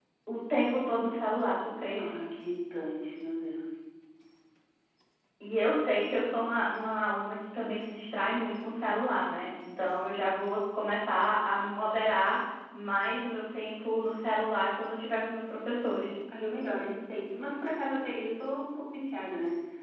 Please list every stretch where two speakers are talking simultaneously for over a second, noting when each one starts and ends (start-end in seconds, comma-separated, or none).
none